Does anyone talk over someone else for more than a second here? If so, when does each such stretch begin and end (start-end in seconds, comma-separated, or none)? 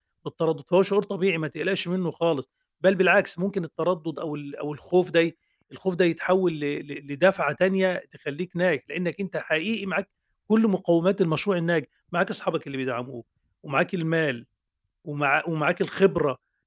none